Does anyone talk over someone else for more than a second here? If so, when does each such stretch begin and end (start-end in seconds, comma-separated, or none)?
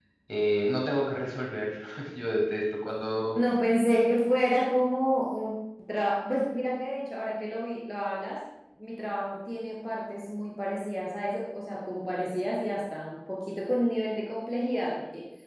none